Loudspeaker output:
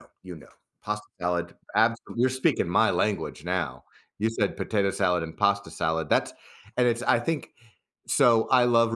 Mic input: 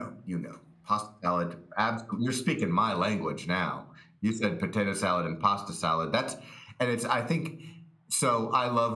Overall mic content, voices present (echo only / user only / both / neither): echo only